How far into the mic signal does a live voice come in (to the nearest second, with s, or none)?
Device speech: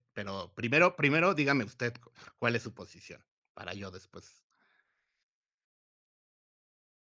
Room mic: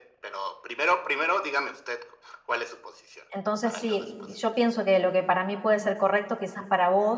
3 s